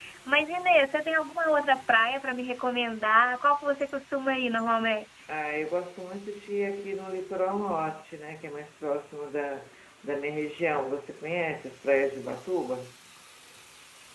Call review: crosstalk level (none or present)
none